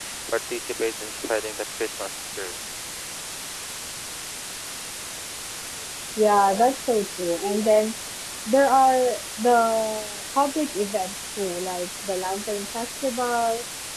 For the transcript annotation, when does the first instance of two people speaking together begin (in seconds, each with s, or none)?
none